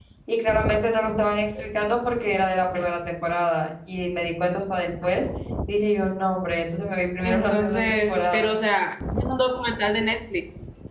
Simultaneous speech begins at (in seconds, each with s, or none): 7.2 s